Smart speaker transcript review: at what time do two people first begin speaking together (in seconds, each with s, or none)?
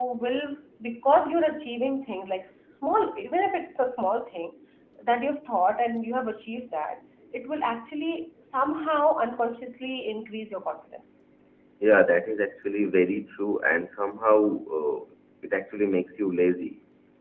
none